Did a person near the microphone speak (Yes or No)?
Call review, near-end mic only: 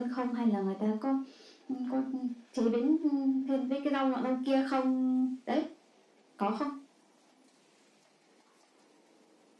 No